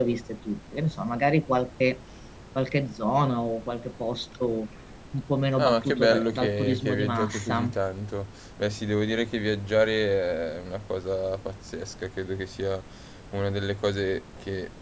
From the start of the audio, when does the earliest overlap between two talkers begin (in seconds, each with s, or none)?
5.6 s